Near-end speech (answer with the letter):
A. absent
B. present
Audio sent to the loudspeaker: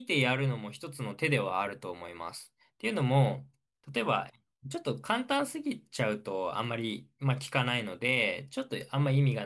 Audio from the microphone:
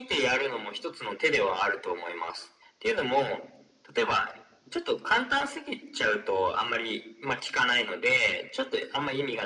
A